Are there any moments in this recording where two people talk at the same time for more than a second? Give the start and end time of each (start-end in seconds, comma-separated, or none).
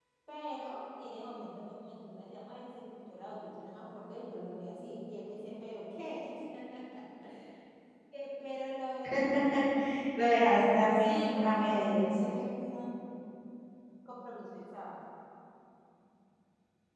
10.9-12.1